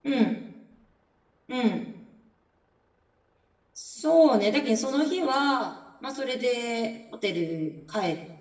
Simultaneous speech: No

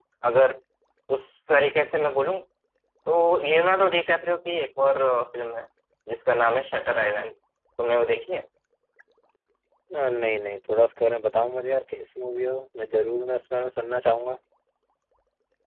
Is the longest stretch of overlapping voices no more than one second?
Yes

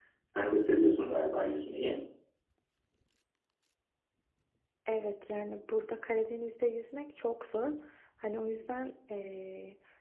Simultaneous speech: No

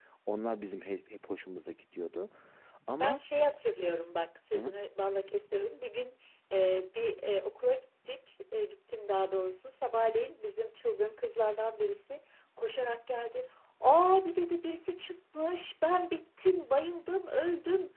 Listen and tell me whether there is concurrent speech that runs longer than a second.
No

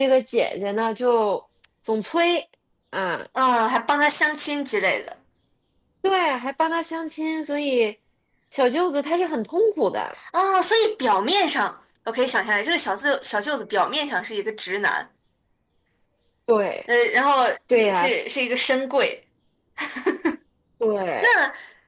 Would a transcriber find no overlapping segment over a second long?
Yes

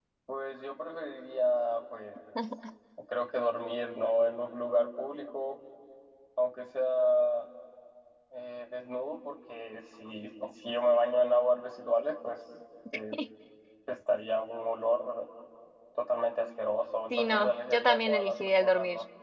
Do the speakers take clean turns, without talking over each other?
No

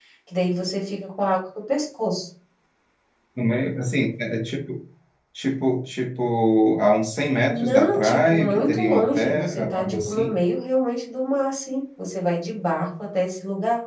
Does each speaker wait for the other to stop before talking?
No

